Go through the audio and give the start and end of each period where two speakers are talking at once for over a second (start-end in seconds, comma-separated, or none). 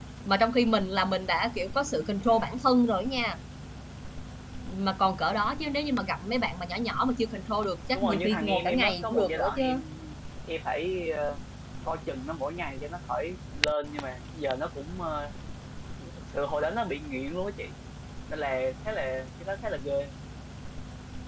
7.9-9.6